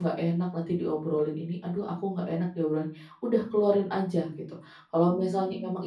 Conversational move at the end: listening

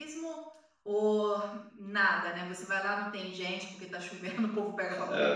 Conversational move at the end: taking over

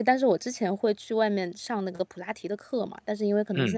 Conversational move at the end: listening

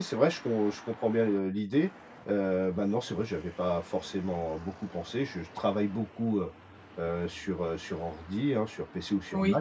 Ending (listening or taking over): listening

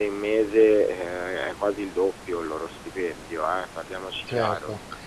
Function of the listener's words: taking over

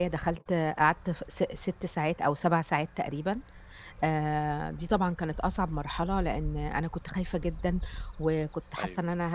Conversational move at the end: listening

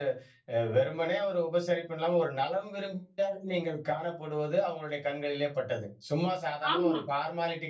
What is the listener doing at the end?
listening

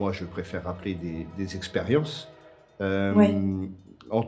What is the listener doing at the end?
listening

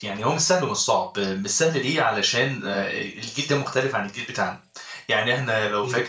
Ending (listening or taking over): listening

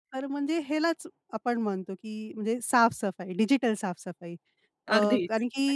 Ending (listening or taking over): listening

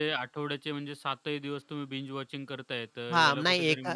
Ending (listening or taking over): taking over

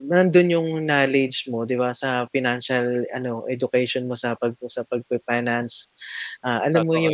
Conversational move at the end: listening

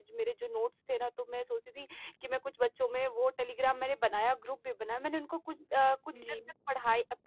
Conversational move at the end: listening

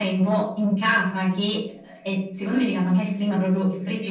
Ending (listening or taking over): taking over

